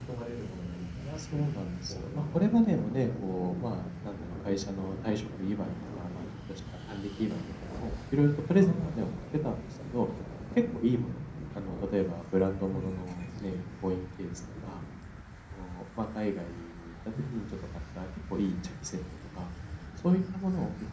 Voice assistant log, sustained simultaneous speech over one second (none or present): present